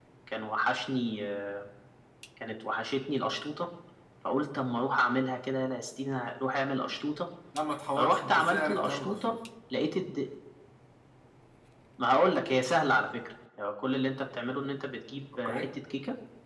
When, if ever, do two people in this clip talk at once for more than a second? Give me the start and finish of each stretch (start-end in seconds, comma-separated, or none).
8.0-9.3